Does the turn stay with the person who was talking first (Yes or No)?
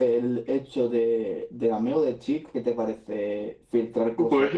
No